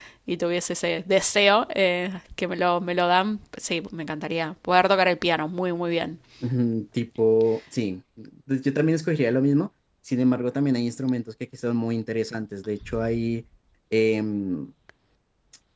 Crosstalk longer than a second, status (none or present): none